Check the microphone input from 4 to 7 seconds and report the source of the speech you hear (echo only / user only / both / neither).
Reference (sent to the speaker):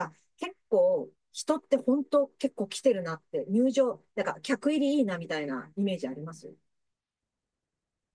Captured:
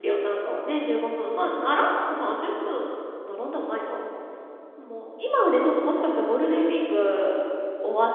user only